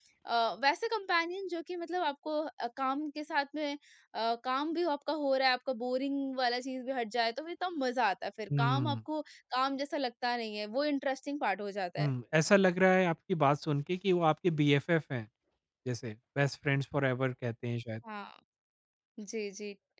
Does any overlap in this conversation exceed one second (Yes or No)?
No